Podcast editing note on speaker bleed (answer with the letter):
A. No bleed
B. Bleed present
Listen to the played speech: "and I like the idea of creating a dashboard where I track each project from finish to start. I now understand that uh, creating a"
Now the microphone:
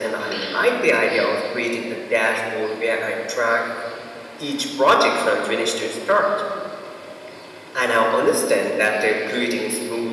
B